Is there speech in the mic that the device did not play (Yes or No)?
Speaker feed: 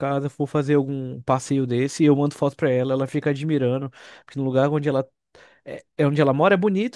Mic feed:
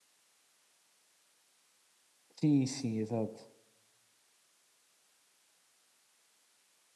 Yes